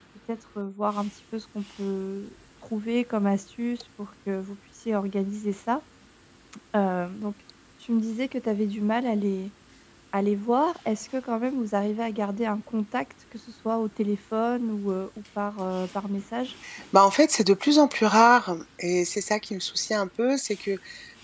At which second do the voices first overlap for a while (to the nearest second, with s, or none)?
none